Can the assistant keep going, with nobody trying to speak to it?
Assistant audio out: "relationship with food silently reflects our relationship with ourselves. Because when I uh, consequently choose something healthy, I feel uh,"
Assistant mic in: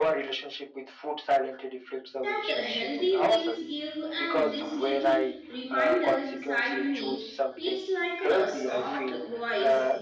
No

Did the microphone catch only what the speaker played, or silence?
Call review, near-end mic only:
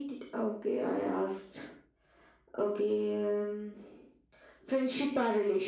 Yes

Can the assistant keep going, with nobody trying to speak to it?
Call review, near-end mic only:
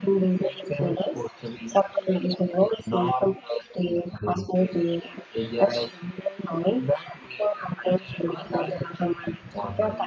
No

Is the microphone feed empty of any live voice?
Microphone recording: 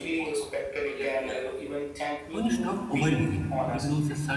No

